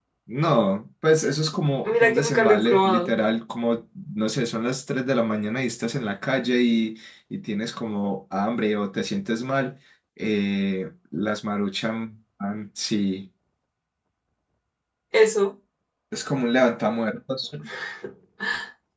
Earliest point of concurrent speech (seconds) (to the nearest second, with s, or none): 2 s